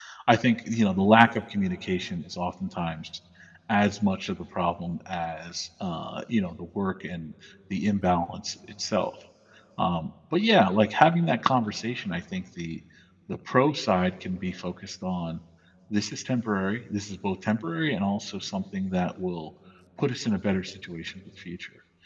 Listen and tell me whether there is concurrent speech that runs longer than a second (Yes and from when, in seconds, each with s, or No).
No